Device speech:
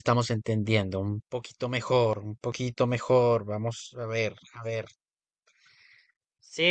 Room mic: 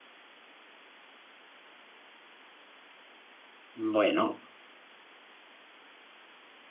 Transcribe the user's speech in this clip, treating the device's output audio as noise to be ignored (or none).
Bueno,